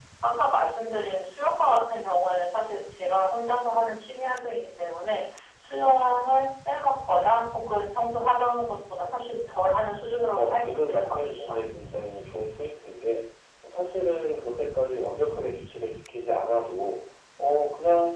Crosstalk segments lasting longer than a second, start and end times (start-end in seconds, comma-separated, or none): 10.4-11.6